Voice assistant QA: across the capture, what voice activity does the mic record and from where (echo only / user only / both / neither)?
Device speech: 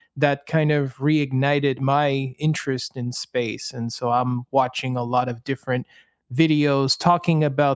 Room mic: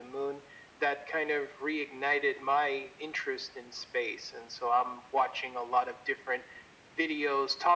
echo only